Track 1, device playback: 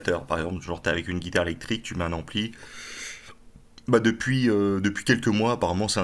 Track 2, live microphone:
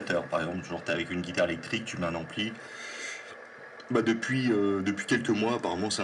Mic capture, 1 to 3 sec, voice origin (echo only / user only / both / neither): echo only